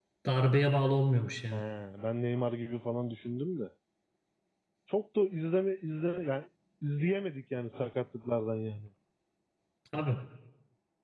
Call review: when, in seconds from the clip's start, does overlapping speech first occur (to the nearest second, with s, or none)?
none